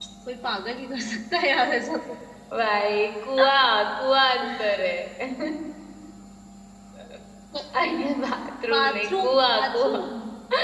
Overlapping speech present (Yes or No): Yes